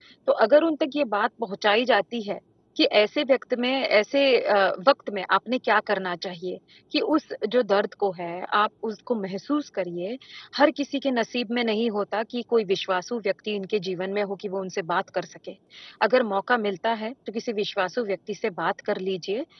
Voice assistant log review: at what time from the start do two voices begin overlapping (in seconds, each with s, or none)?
none